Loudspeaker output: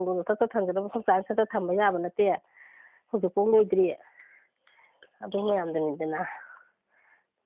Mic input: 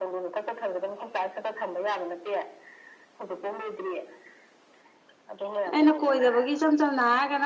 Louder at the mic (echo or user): user